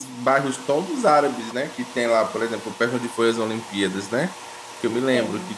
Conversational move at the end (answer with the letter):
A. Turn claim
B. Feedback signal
B